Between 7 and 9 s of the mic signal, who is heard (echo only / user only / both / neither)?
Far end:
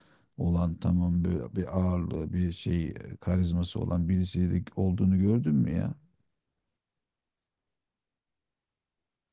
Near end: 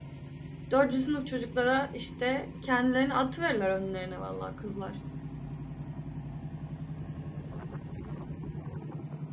neither